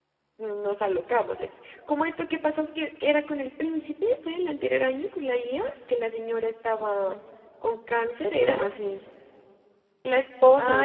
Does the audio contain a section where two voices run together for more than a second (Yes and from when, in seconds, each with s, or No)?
No